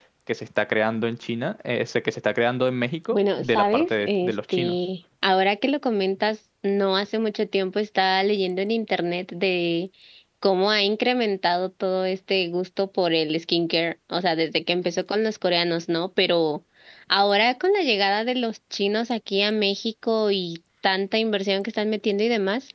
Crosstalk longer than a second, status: present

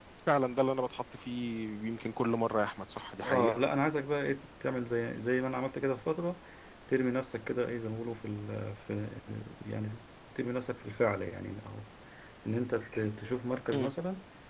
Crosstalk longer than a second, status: none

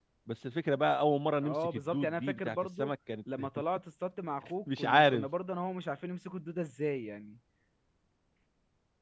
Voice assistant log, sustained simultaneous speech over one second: present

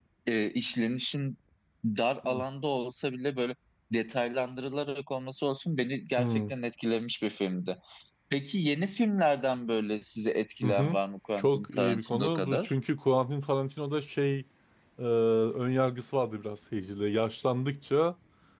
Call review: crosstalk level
present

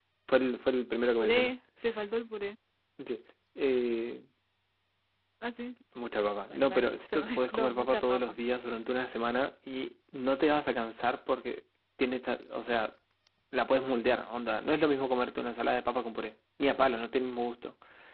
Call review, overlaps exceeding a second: present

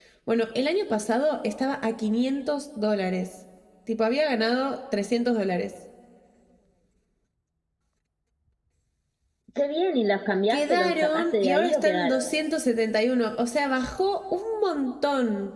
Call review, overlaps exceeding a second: present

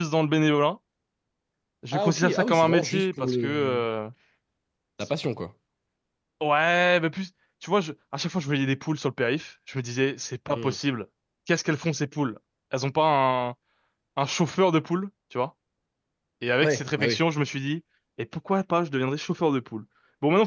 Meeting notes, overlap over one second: present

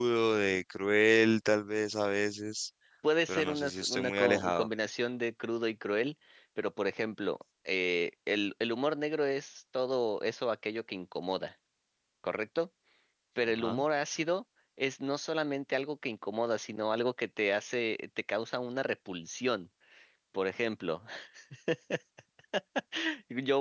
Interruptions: present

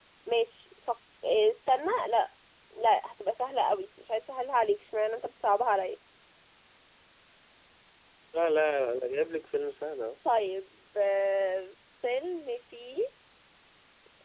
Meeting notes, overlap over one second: none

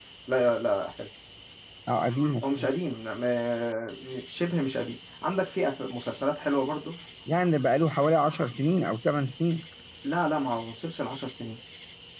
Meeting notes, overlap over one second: none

